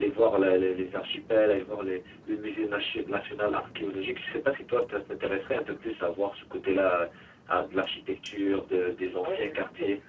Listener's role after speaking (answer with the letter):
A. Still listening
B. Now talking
B